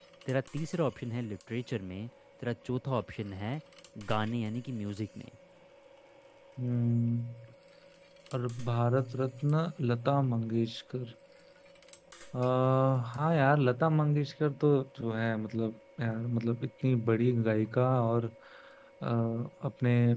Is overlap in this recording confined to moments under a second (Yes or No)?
Yes